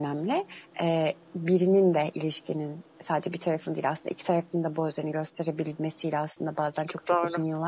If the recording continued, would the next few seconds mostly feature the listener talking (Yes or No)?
No